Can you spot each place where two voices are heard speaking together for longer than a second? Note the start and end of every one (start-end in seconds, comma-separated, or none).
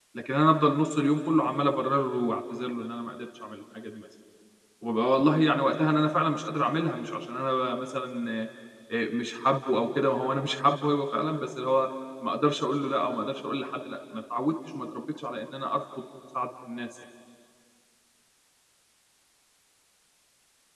none